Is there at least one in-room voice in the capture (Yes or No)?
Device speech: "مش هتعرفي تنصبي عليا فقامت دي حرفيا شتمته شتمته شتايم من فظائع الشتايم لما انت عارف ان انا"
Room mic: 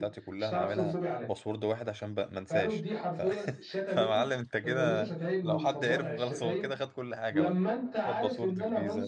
Yes